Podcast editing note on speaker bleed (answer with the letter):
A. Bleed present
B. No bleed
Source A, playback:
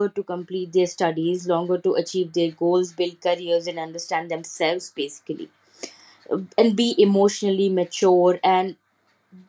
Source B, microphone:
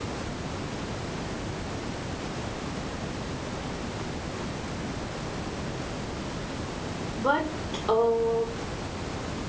B